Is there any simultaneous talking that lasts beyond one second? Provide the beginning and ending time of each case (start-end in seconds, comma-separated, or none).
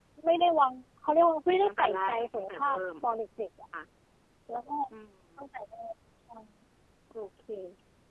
1.6-3.2